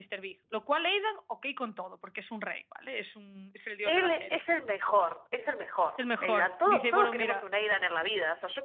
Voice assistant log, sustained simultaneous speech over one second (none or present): present